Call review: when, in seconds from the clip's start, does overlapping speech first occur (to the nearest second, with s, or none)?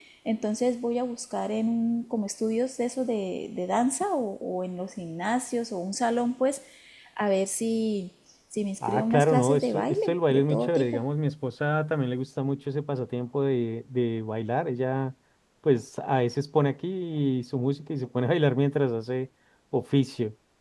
9 s